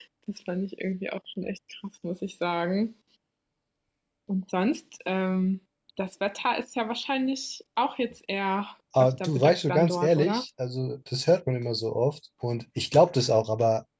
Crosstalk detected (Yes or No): Yes